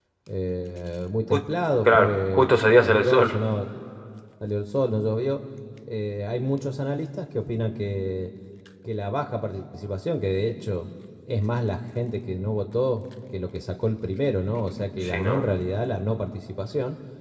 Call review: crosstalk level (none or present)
present